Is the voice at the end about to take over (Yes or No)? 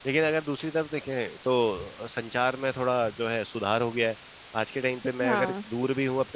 No